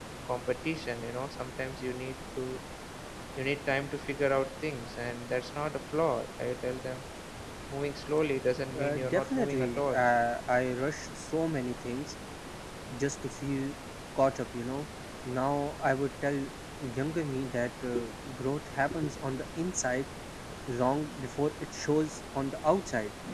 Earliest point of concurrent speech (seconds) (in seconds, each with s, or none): 8.7 s